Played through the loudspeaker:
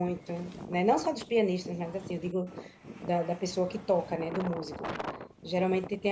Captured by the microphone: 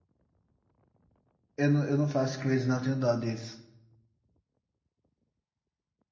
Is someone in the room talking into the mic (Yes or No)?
Yes